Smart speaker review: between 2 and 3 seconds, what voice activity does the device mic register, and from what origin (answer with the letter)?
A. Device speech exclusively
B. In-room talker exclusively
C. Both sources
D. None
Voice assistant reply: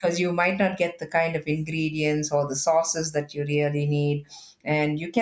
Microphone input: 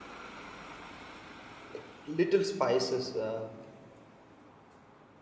B